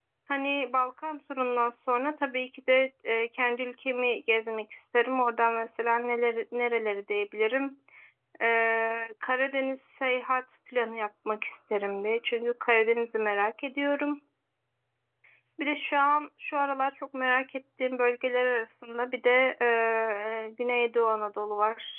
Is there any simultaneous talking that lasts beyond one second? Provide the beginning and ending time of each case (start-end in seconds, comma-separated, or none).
none